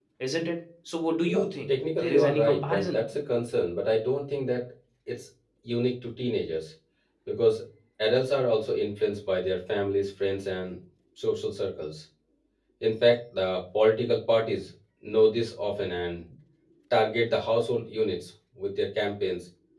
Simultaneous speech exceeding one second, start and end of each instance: 1.3-3.0

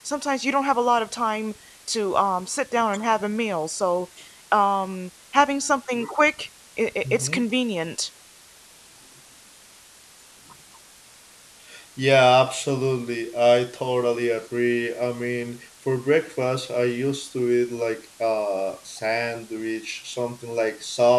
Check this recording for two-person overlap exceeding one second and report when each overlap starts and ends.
none

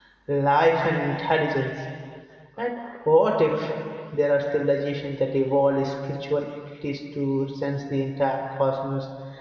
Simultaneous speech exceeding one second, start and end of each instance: none

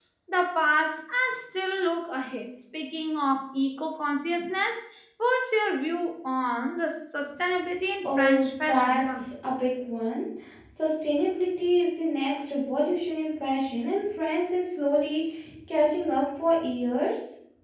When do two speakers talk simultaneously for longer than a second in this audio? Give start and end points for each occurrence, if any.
8.0-9.3

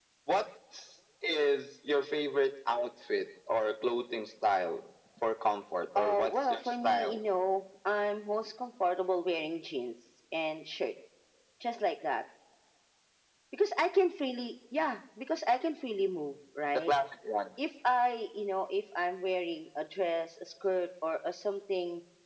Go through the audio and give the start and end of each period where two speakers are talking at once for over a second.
6.0-7.2

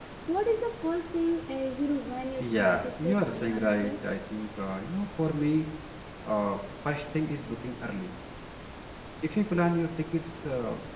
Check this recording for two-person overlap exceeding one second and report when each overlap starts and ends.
2.4-3.9

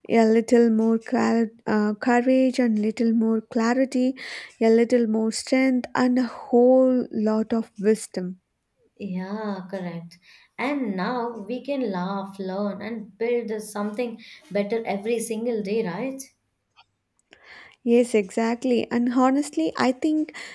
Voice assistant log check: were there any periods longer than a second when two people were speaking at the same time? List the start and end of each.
none

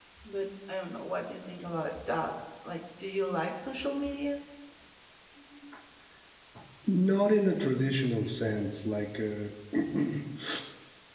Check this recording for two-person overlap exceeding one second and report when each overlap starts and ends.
none

